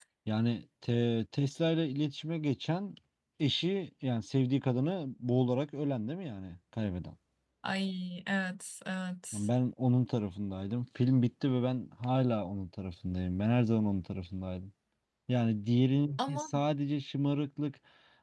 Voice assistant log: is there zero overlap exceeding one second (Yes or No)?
Yes